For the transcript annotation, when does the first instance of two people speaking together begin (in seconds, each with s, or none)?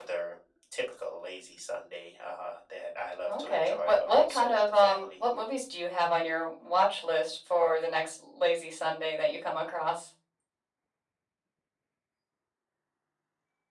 3.3 s